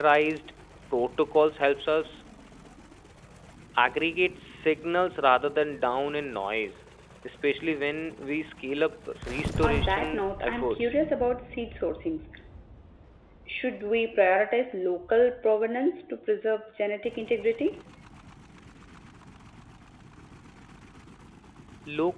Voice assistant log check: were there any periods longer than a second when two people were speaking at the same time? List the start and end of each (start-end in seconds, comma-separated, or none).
9.6-10.9